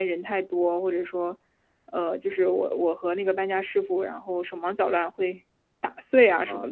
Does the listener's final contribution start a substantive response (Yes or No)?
Yes